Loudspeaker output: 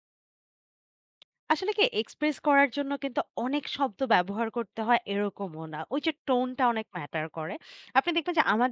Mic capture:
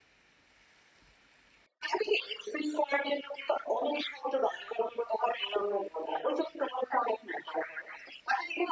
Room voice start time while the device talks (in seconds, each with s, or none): none